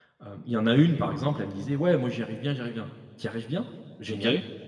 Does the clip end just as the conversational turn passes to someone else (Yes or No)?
No